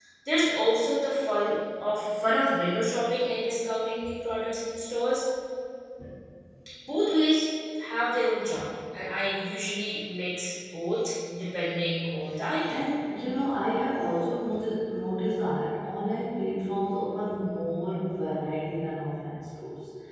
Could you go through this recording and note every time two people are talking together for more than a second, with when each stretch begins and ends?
none

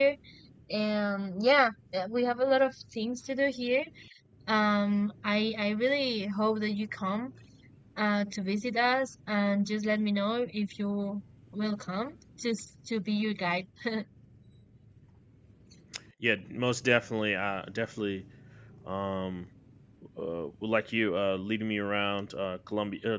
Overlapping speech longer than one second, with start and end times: none

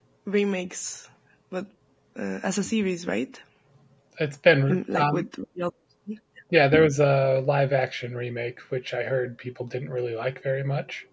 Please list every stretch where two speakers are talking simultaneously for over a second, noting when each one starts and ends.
none

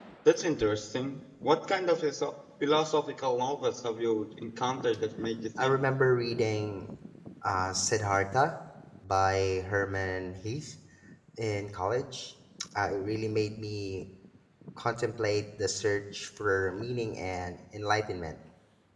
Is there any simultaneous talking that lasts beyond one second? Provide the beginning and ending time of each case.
none

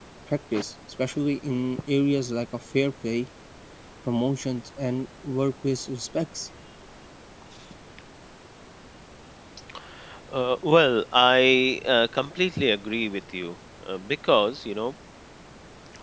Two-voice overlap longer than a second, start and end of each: none

